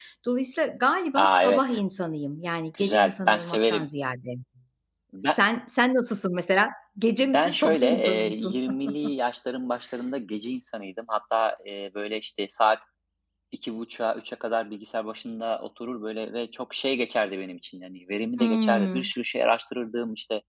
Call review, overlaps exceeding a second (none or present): present